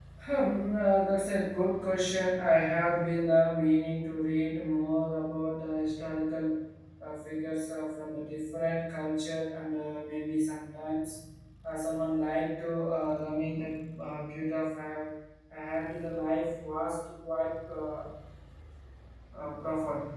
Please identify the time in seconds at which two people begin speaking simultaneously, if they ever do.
none

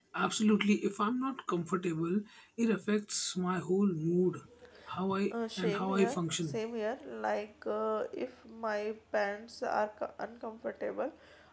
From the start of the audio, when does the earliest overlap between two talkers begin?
5.3 s

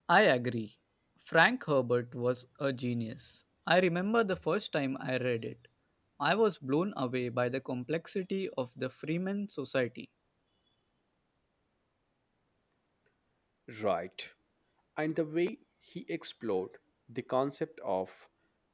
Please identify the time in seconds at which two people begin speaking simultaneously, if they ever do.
none

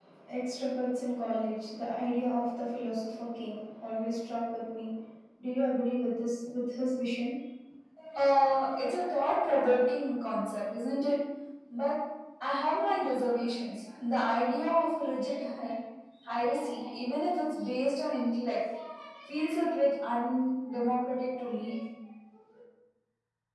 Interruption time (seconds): none

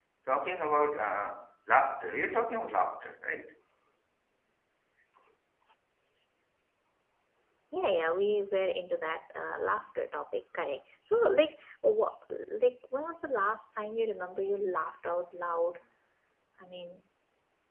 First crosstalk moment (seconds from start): none

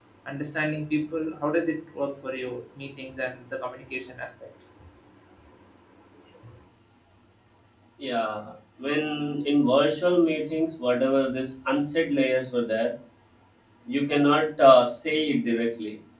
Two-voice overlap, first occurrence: none

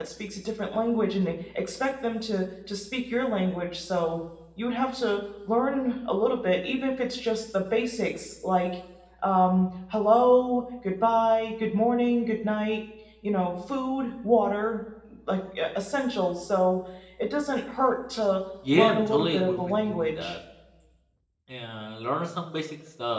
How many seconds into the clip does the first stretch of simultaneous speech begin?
18.6 s

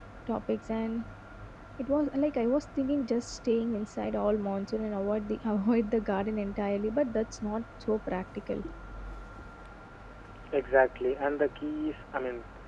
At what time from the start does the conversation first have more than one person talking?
none

